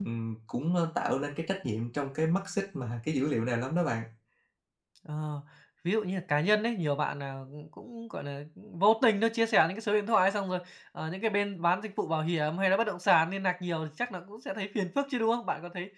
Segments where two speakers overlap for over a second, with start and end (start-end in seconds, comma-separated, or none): none